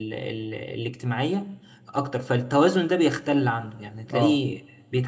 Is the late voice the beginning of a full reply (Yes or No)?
No